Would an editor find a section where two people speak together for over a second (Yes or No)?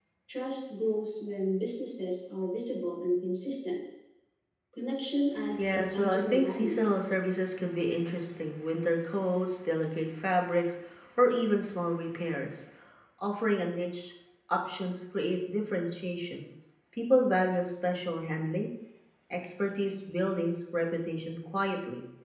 Yes